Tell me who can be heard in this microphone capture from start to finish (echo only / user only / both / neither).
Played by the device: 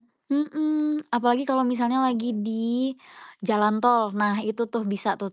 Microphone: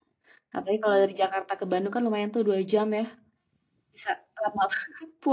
user only